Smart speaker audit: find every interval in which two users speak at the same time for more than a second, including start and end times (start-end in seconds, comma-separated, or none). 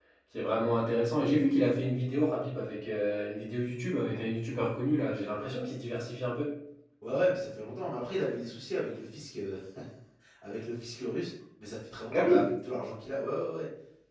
none